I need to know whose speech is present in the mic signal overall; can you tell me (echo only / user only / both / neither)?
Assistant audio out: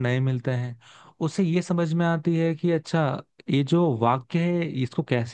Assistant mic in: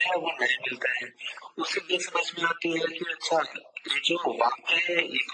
echo only